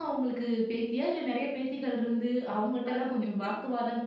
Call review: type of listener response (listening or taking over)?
listening